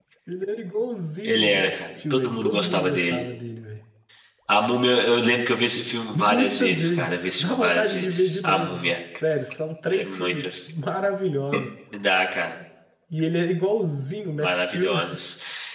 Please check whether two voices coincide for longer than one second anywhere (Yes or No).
Yes